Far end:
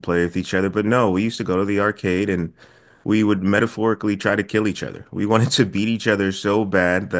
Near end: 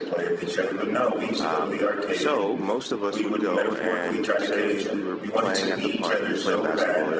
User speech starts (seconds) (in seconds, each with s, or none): 1.4 s